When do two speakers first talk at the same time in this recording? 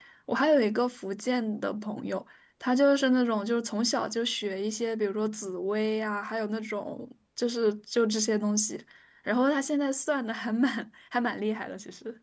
none

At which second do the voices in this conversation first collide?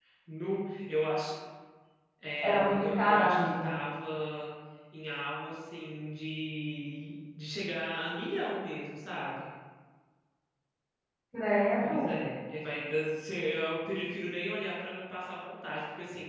2.4 s

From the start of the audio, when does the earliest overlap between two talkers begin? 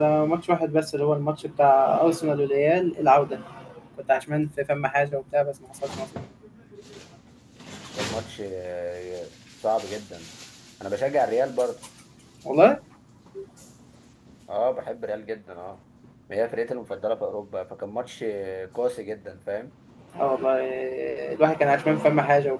none

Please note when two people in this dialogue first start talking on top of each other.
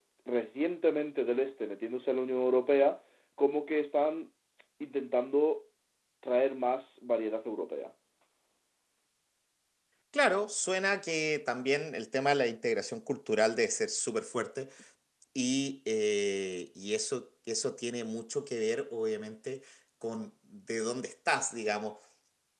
none

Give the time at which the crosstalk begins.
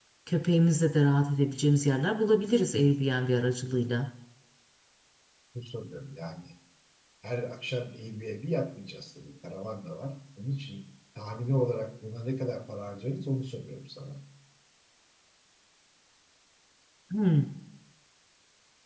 none

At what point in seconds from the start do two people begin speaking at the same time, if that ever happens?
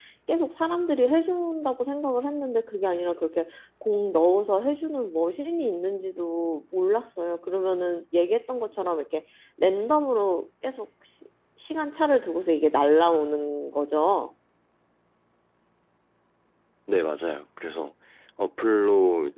none

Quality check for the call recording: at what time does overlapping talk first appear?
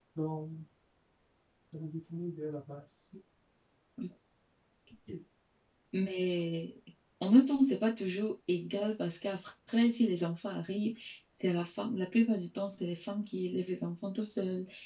none

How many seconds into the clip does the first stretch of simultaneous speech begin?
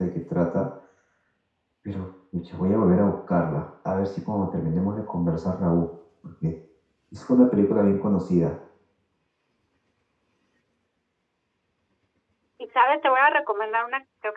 none

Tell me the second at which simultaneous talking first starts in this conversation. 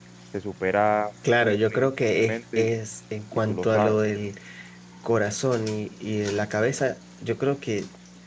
1.4 s

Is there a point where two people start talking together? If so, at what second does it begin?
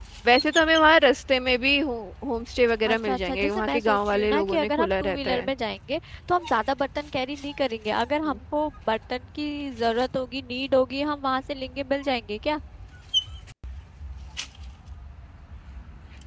2.8 s

